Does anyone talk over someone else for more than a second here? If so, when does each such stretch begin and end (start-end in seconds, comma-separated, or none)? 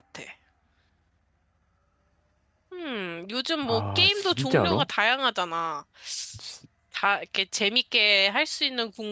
3.6-4.8